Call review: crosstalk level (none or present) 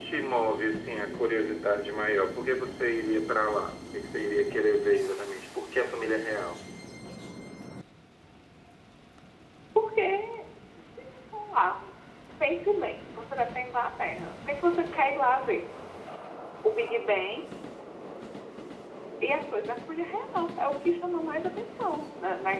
none